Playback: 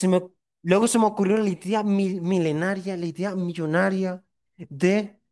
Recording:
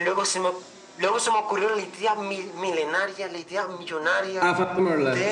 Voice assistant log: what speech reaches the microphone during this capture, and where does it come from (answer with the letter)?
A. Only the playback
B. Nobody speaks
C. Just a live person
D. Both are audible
D